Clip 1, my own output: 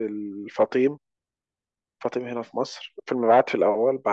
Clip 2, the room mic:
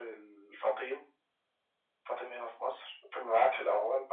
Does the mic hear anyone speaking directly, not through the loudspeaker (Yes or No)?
No